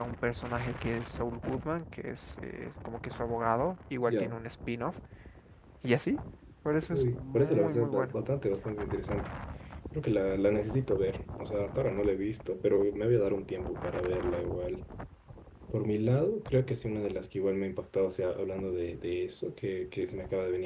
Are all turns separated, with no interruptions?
No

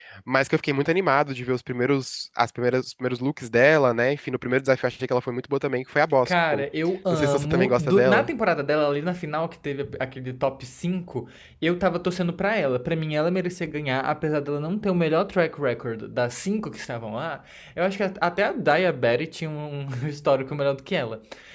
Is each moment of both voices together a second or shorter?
No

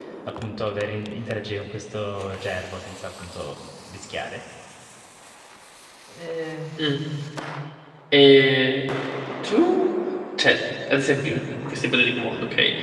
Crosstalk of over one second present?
No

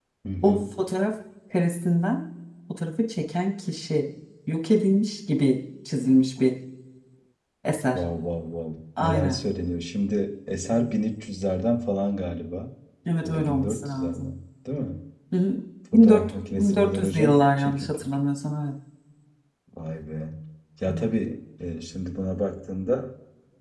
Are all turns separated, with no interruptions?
No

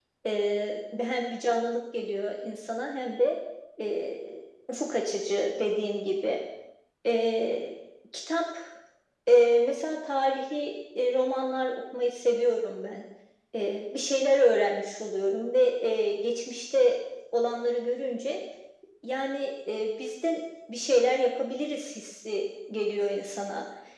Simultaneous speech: No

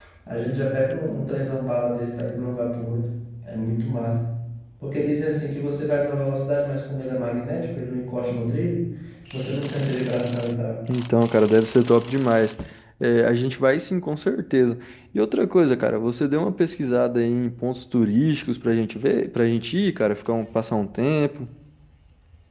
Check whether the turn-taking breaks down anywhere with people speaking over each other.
No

